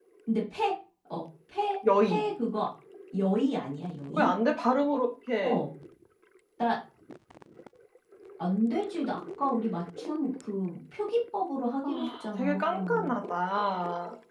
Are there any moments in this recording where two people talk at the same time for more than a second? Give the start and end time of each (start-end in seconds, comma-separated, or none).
11.8-13.1